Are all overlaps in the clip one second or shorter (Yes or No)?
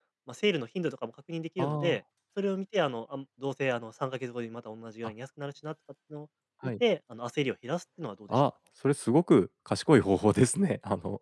Yes